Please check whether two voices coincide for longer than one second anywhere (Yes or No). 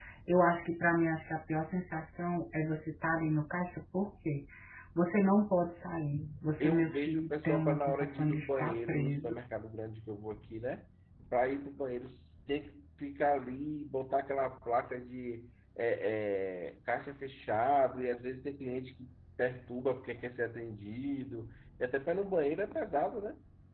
Yes